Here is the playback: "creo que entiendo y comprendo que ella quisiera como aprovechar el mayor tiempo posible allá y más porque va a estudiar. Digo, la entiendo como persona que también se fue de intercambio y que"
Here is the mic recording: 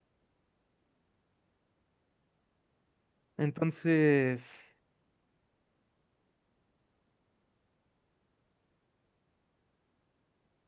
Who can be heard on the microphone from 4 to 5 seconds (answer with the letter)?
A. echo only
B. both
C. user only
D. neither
C